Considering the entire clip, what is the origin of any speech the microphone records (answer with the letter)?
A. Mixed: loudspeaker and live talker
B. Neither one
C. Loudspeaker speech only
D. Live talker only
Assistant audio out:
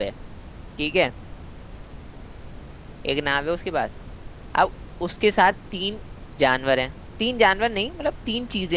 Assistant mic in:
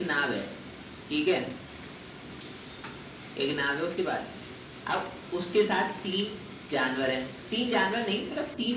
C